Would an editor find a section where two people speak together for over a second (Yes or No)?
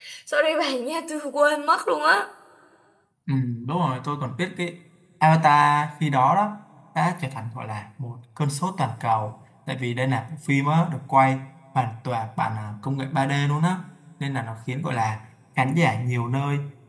No